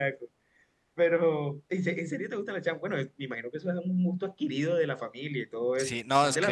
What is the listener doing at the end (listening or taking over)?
taking over